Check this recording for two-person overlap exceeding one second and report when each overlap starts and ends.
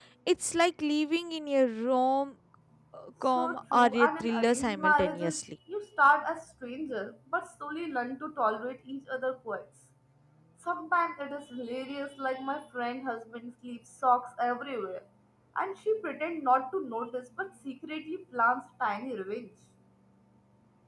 3.4-5.4

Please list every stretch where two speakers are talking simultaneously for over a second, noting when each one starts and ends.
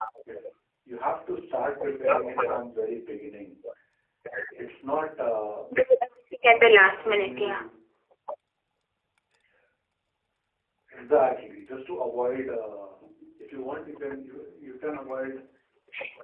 6.4-7.6

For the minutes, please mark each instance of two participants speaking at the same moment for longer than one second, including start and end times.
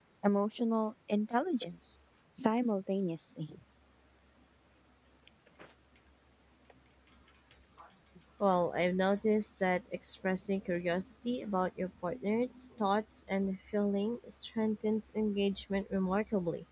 none

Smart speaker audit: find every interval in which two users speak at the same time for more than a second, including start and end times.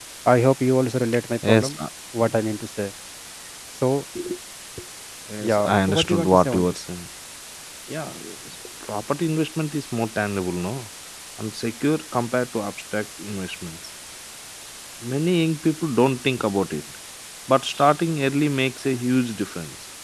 5.4-6.7

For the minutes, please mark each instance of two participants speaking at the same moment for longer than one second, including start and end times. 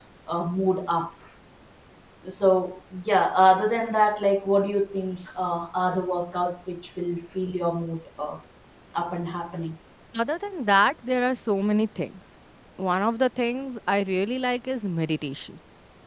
none

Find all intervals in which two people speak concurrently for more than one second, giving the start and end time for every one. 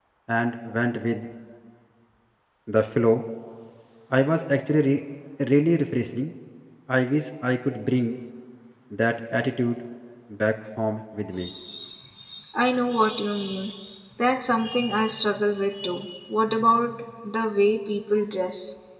none

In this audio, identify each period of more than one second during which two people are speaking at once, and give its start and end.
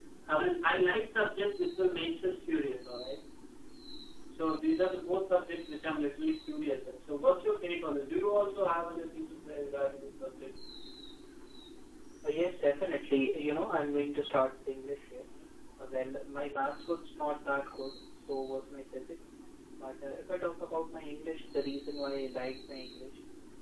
none

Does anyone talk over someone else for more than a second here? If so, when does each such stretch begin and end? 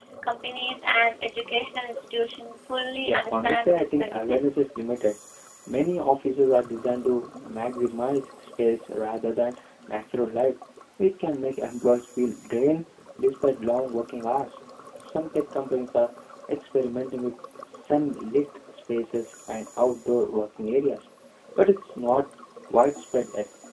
3.0-4.4

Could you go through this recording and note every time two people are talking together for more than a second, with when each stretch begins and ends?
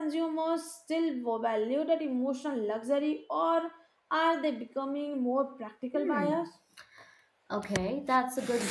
none

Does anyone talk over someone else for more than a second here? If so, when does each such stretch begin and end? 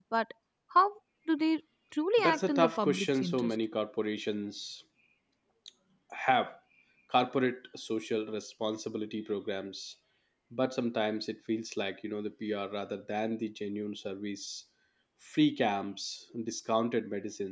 2.2-3.5

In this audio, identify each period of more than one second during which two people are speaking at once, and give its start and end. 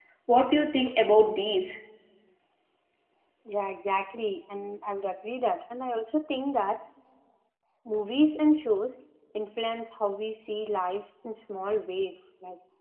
none

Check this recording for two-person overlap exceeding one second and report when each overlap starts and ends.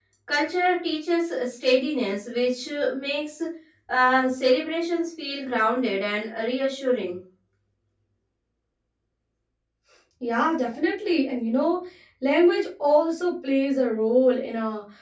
none

